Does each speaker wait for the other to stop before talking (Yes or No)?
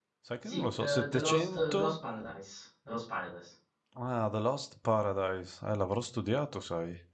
No